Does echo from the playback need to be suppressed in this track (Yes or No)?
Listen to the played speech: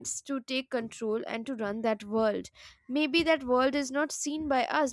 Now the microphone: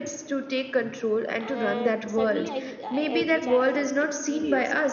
Yes